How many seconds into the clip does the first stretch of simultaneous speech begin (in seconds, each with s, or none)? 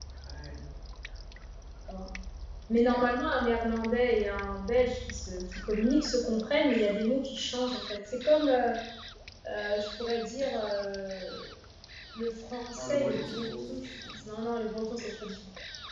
12.8 s